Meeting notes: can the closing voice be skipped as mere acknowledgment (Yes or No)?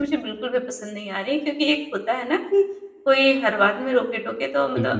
Yes